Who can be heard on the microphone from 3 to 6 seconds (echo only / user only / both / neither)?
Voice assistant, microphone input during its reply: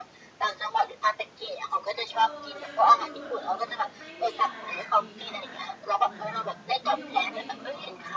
both